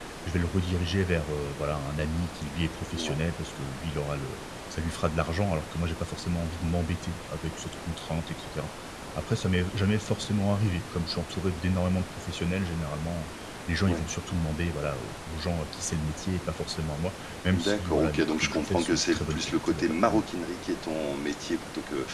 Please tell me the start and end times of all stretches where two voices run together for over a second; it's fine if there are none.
17.5-20.2

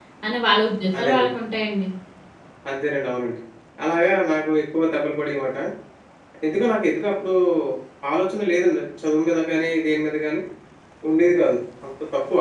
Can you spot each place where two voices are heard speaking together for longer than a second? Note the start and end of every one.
none

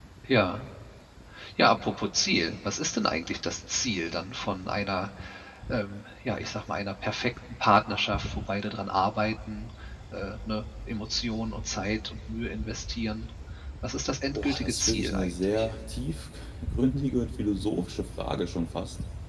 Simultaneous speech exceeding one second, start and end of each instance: 14.3-15.7

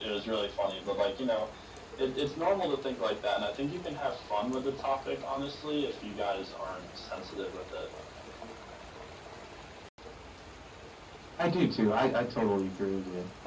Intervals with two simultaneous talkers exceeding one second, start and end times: none

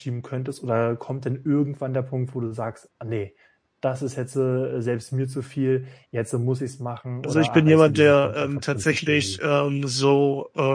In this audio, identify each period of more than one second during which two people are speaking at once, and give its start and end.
7.2-9.4

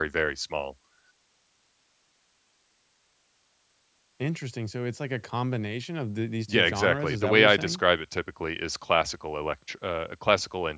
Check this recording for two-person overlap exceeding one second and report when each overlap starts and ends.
6.5-7.8

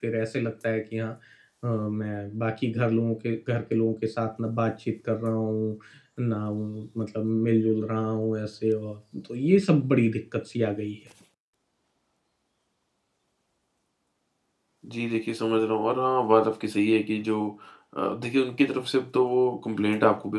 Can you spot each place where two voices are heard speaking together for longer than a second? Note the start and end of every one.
none

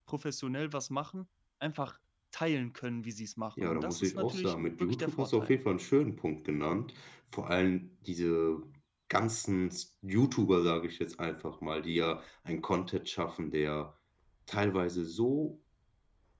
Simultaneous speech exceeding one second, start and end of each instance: 3.6-5.5

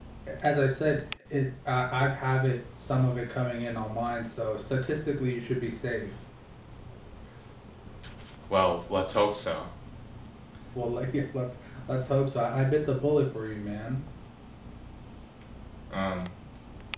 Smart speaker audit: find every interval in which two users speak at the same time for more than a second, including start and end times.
none

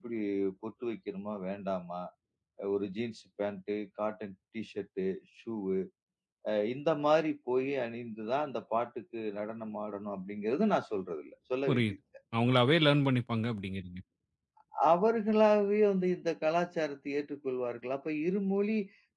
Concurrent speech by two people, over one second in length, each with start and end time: none

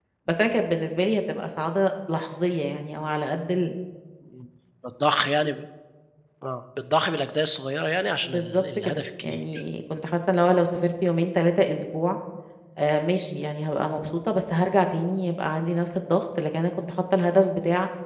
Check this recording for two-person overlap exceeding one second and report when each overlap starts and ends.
8.2-9.6

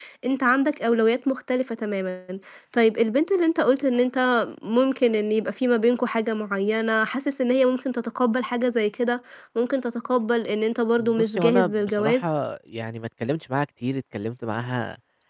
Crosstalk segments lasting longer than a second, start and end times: 11.0-12.3

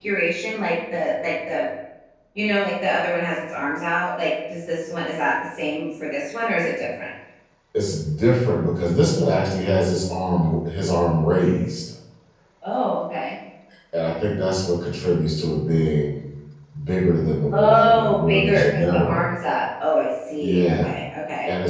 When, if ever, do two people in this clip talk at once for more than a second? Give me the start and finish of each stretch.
17.5-19.2

